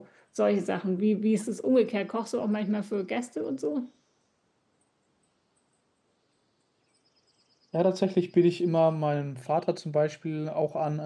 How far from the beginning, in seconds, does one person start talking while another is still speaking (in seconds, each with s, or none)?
none